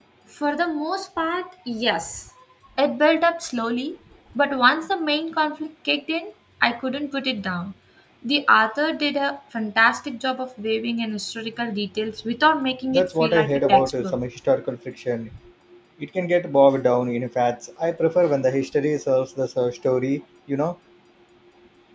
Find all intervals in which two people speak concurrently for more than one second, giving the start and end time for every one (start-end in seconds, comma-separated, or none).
12.9-14.2